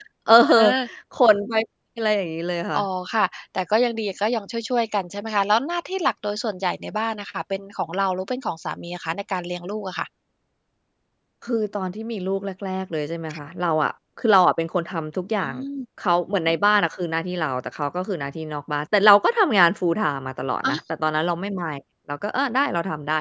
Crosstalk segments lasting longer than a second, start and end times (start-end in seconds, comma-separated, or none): none